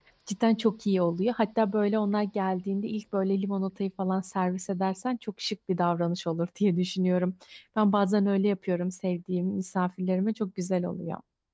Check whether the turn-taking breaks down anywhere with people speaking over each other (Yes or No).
No